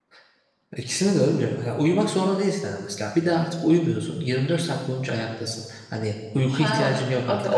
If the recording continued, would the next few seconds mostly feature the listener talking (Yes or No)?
Yes